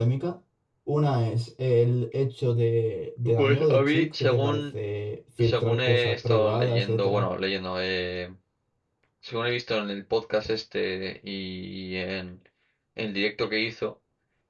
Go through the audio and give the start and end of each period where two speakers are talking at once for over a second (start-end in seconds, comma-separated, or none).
3.4-4.6, 5.4-7.2